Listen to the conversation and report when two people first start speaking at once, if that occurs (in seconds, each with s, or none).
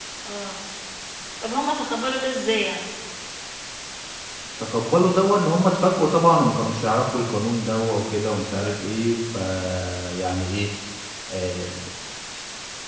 none